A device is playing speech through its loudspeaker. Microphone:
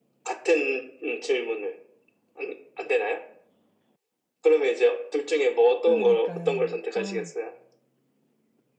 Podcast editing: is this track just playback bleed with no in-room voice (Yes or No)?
No